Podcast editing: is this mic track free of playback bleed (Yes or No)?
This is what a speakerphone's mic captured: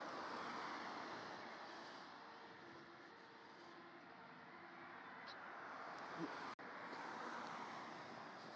Yes